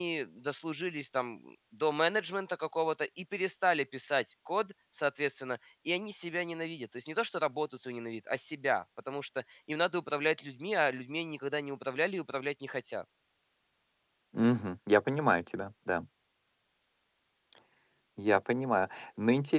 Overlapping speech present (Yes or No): No